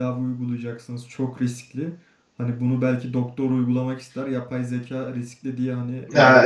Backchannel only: No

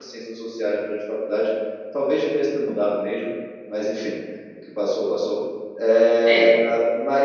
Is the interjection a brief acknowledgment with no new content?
Yes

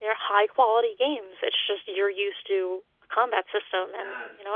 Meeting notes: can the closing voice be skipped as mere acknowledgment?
No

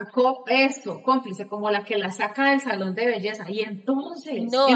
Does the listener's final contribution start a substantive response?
Yes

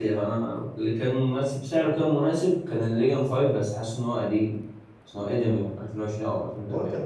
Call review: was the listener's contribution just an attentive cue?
No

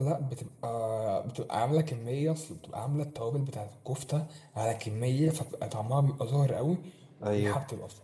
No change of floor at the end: Yes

